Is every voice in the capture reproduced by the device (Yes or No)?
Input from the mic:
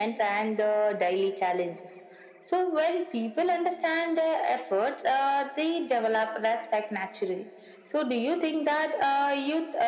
Yes